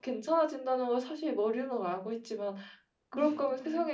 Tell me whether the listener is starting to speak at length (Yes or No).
No